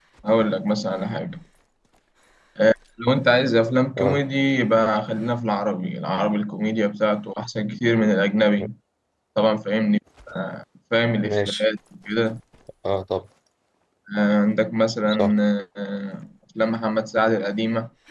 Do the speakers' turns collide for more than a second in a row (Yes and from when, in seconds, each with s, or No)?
No